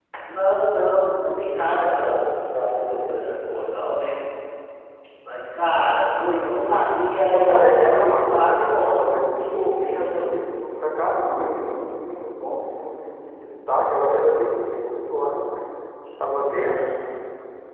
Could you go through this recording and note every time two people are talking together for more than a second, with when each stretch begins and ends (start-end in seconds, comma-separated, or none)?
1.7-3.4, 7.3-10.2